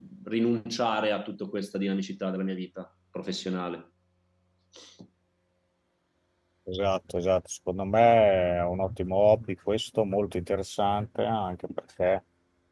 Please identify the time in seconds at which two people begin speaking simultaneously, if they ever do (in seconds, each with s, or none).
none